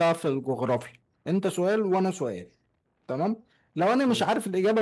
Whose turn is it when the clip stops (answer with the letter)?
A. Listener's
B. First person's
B